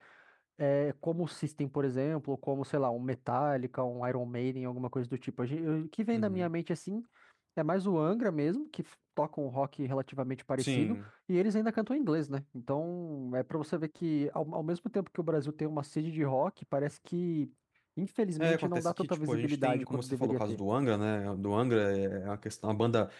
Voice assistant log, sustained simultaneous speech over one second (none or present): present